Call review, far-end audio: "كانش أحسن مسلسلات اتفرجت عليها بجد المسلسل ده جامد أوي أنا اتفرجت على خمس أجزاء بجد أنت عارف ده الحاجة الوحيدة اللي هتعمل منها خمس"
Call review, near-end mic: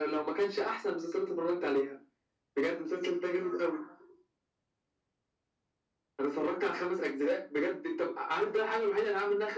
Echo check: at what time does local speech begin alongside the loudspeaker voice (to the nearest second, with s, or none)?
none